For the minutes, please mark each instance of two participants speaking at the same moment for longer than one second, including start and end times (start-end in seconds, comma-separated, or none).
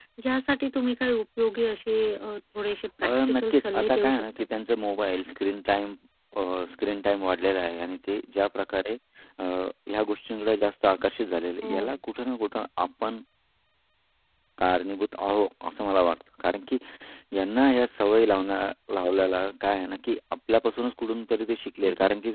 3.0-4.4